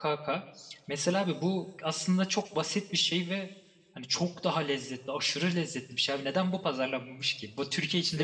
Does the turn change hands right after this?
Yes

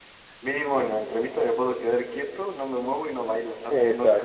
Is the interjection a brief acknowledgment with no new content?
No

